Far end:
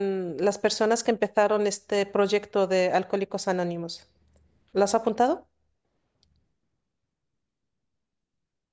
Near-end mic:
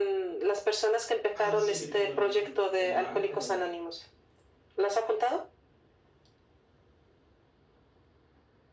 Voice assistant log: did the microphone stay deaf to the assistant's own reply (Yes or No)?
No